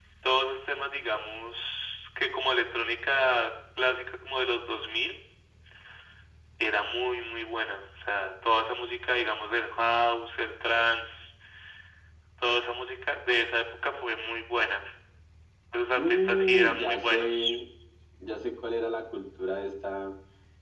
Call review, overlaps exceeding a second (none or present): present